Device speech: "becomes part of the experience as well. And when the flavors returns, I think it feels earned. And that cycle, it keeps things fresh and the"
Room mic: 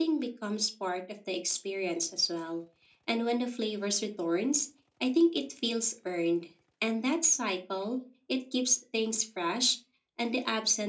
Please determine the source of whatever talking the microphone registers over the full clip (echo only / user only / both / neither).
echo only